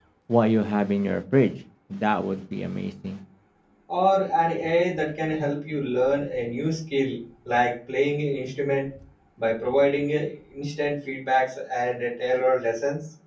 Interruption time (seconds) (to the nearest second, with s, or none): none